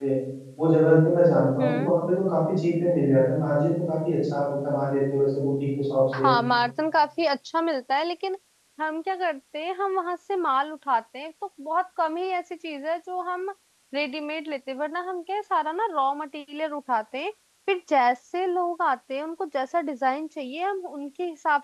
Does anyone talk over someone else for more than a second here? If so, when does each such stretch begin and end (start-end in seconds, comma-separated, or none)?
none